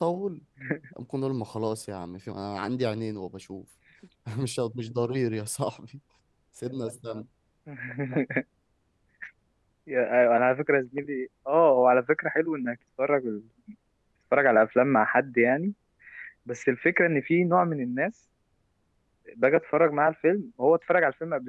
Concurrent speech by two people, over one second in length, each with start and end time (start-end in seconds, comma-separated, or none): none